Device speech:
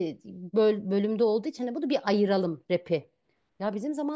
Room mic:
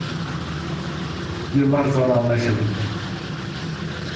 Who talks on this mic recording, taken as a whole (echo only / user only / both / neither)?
user only